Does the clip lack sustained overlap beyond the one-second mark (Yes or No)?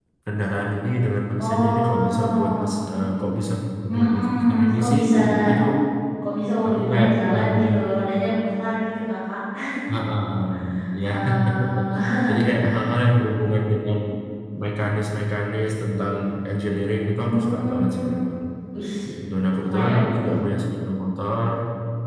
No